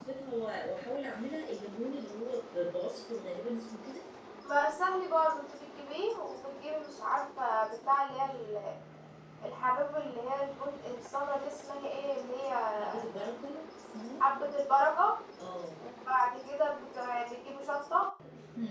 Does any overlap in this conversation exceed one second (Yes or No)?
No